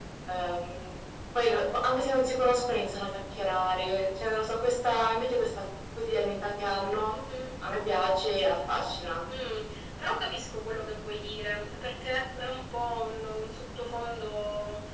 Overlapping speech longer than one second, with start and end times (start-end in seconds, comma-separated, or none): none